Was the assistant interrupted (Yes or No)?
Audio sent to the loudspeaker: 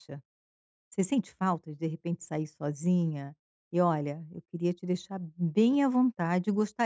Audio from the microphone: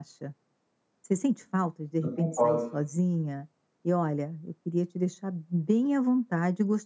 Yes